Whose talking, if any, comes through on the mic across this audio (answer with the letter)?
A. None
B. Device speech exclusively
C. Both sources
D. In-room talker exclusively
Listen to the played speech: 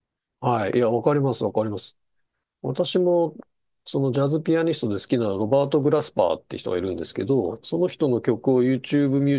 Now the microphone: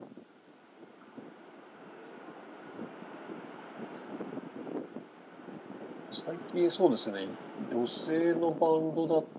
D